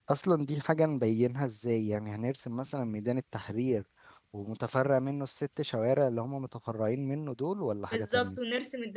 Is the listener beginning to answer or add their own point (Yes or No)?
Yes